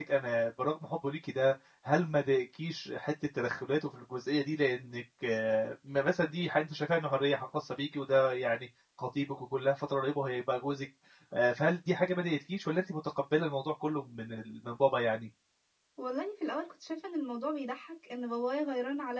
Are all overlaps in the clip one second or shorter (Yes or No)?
Yes